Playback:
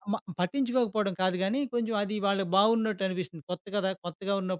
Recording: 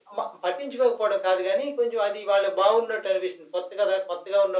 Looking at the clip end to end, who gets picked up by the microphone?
echo only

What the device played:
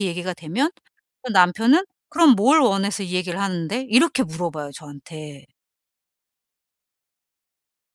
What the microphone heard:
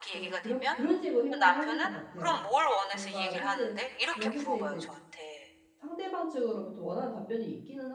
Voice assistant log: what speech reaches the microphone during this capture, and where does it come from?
both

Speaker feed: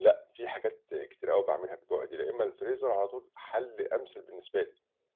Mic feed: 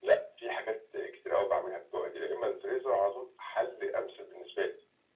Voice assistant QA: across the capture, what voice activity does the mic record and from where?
echo only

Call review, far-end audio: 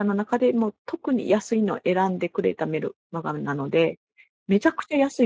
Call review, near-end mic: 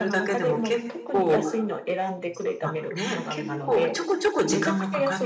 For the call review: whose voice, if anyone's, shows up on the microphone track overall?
both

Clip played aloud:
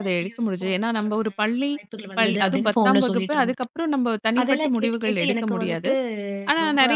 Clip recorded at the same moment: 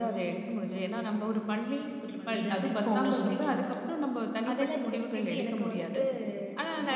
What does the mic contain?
echo only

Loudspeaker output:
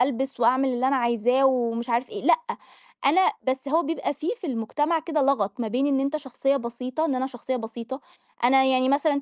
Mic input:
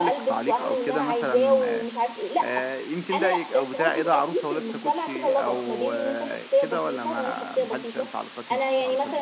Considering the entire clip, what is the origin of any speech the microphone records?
both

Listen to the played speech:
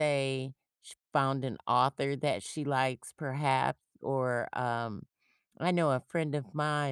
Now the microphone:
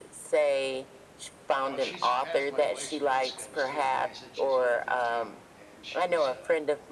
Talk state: both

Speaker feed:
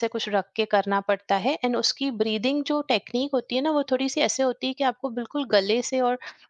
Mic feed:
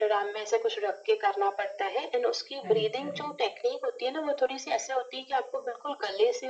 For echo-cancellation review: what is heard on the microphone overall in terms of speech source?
both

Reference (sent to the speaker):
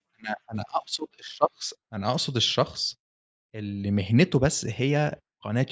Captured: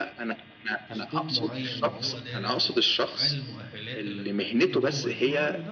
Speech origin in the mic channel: both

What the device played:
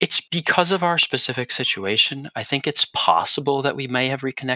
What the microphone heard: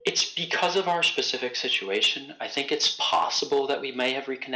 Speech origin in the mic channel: echo only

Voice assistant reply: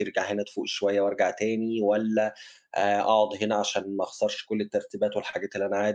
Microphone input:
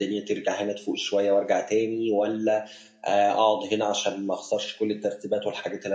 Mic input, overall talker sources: echo only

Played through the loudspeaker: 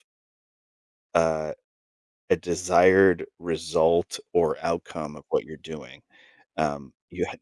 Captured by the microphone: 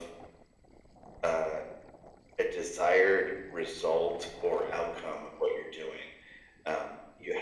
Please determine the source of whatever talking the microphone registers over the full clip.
echo only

